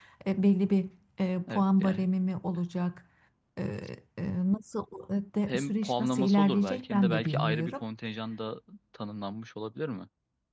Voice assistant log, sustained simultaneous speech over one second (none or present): present